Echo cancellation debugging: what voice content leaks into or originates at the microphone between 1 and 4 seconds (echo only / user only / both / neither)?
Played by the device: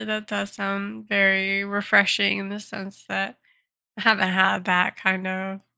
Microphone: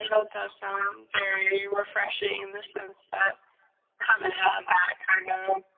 echo only